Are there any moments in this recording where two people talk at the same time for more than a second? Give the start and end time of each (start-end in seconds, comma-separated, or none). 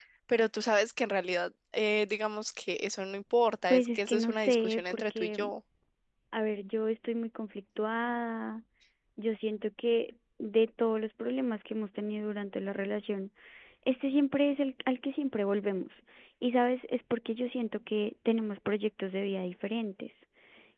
3.7-5.4